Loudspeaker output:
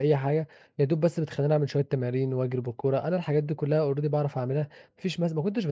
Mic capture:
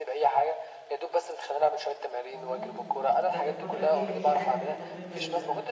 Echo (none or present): present